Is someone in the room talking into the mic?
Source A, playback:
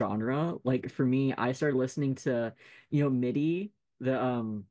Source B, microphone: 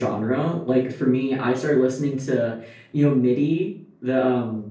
No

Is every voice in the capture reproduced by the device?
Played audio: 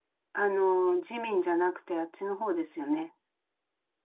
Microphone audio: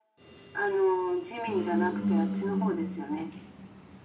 No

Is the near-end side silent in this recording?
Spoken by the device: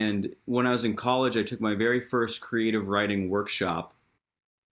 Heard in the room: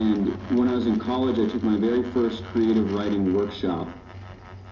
Yes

